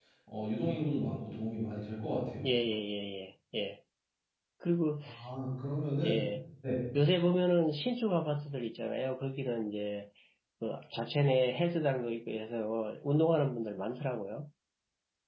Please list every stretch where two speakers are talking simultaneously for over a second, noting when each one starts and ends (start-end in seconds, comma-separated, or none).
none